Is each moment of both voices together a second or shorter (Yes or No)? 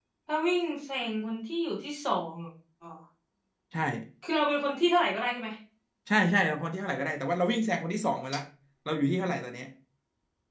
Yes